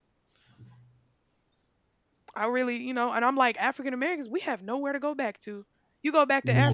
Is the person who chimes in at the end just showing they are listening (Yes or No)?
Yes